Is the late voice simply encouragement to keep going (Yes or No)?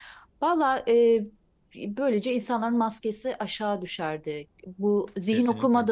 Yes